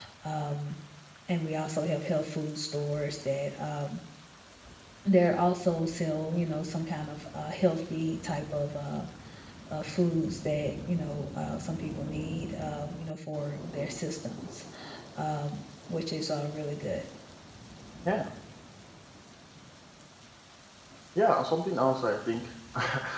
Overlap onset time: none

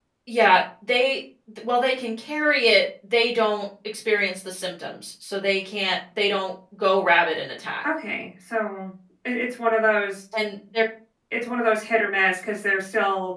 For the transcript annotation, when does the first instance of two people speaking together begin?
none

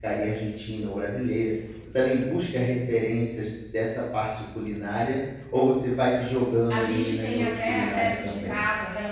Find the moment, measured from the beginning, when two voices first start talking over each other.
6.7 s

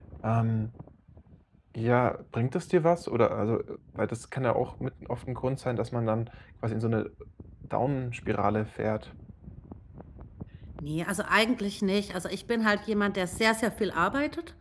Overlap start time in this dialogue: none

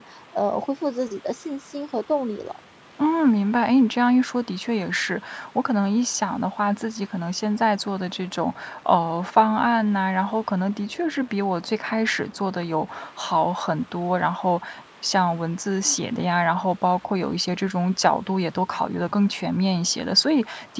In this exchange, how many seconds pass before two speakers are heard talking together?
none

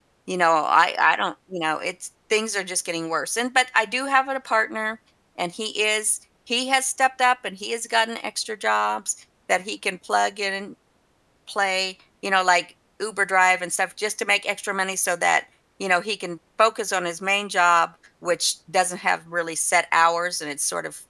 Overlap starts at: none

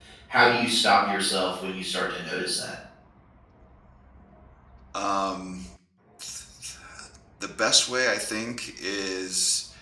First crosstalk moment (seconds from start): none

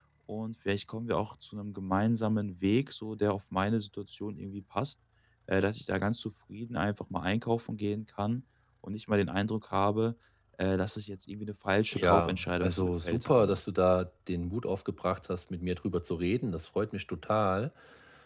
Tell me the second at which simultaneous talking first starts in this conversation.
11.9 s

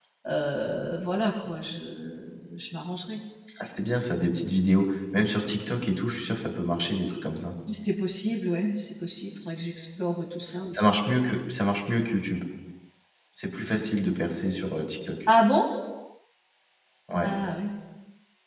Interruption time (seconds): none

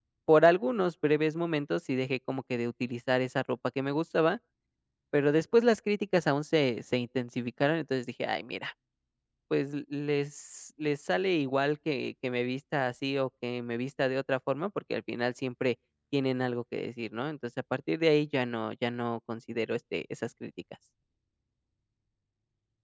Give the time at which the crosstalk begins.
none

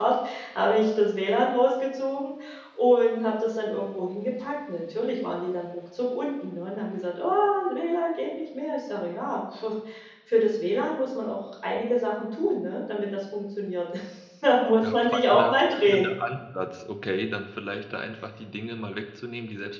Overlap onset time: 14.8 s

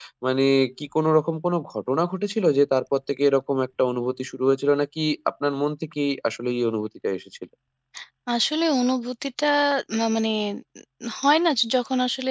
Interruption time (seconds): none

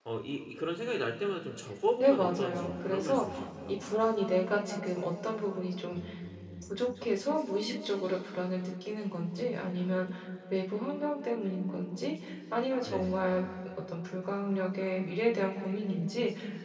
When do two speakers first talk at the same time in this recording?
2.0 s

